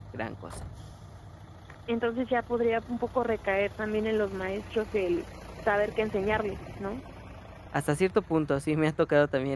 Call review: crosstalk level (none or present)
none